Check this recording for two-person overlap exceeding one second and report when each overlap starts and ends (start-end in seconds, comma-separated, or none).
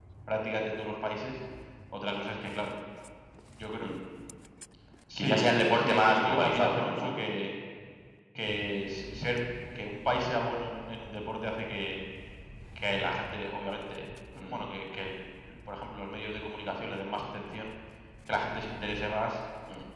5.2-7.2